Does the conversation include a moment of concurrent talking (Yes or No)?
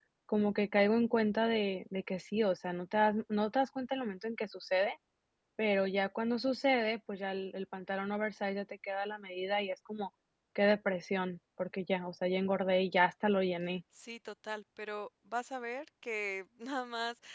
No